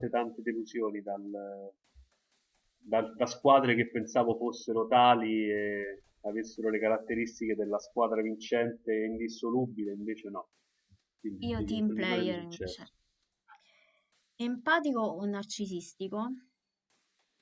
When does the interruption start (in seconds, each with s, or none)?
11.5 s